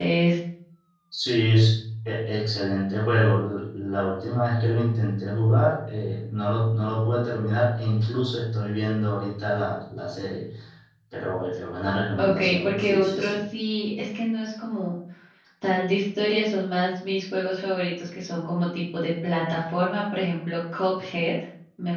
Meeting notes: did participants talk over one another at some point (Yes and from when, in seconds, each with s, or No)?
Yes, from 12.1 s